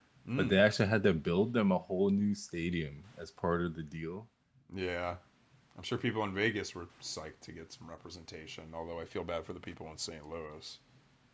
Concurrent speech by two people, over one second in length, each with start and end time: none

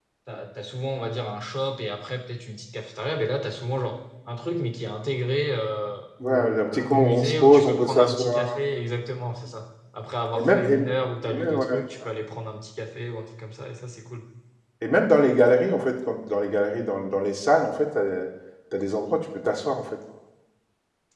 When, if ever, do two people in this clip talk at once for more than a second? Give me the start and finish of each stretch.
6.2-8.4

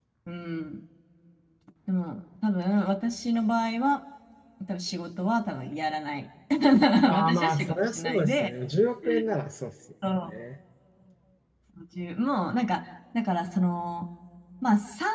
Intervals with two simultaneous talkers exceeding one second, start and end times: 7.1-8.5

